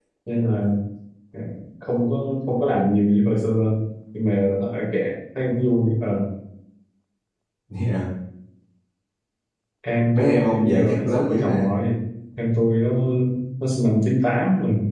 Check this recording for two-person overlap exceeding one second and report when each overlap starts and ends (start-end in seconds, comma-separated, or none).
10.1-11.7